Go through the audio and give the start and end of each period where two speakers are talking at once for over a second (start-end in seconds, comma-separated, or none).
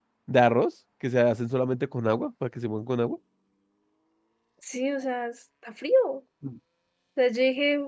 none